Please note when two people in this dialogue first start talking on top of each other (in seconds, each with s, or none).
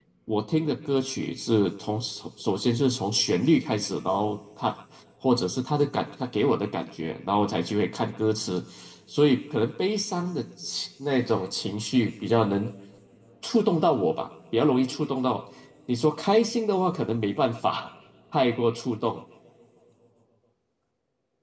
none